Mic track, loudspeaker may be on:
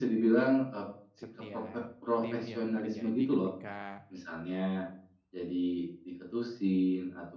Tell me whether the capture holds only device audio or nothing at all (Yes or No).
No